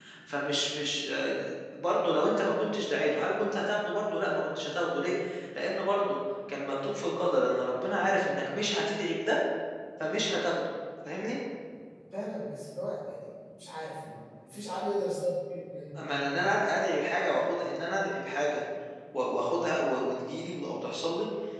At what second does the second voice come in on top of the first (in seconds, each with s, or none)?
none